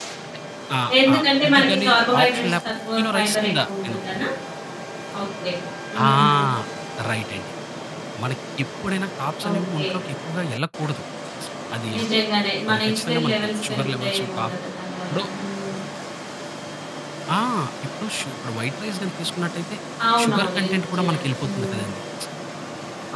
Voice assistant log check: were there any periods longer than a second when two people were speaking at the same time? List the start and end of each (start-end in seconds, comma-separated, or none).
1.1-4.0, 12.7-14.5, 20.2-21.8